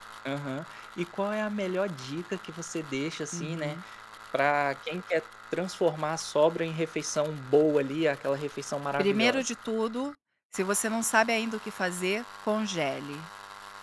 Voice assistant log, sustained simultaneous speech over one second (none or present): none